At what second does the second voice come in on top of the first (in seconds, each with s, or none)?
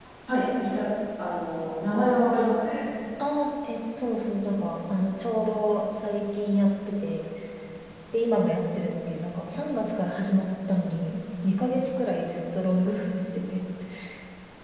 none